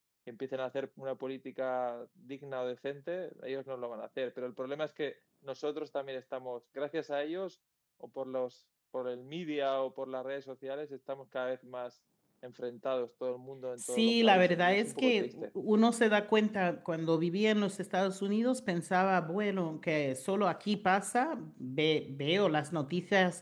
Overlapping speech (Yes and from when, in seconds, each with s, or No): Yes, from 13.8 s